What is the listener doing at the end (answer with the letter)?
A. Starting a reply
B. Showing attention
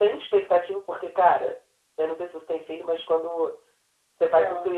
B